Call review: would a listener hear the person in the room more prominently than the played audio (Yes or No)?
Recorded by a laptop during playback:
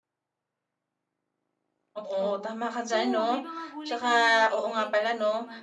No